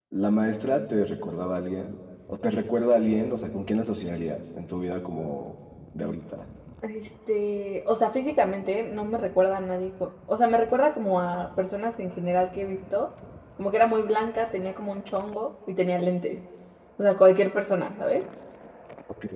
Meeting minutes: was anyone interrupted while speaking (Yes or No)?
No